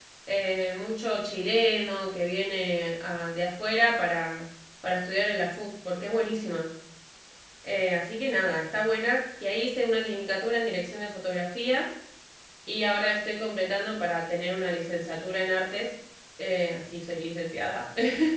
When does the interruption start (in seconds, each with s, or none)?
none